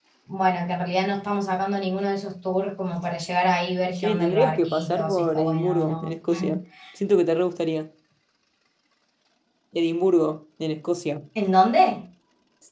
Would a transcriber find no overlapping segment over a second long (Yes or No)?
No